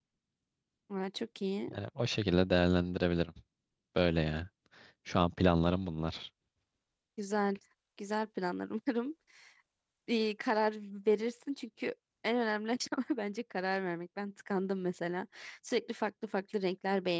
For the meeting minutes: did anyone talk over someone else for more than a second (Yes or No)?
No